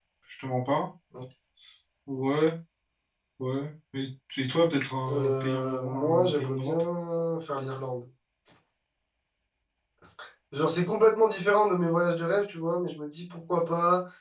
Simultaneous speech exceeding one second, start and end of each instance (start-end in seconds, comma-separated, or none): 5.1-6.8